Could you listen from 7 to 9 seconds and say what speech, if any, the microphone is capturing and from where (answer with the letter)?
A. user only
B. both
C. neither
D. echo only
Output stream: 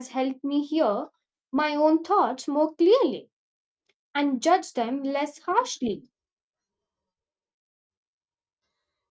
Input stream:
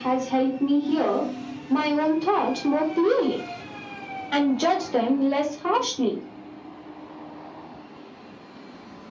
C